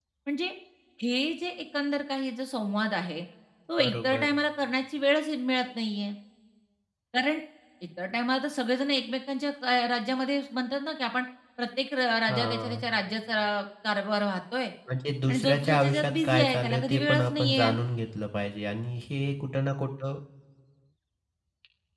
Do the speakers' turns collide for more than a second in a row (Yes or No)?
Yes